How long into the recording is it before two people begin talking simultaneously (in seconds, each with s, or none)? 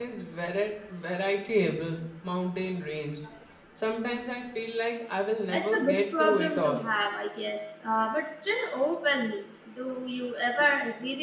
5.5 s